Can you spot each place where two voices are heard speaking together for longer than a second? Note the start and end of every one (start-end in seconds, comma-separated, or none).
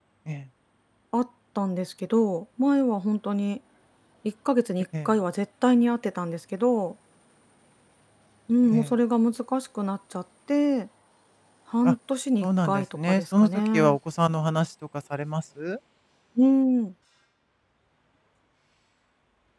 12.4-14.0